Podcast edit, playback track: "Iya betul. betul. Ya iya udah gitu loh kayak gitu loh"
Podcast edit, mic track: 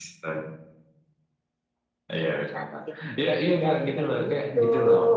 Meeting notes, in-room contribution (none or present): present